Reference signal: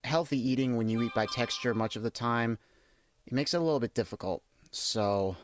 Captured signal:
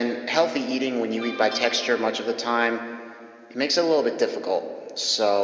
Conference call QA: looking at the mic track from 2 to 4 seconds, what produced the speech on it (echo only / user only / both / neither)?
echo only